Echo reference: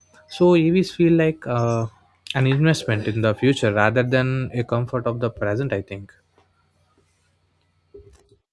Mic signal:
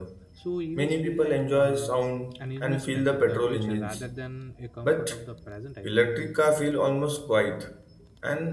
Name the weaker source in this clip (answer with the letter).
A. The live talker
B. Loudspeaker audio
B